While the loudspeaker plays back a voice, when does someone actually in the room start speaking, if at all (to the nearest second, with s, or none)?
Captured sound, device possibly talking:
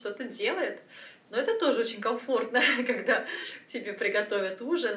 none